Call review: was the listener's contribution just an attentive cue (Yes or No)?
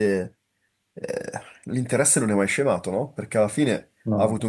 Yes